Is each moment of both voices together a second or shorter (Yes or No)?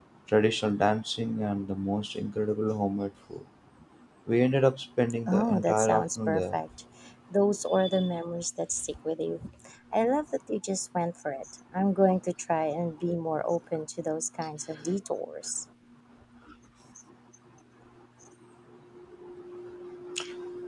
No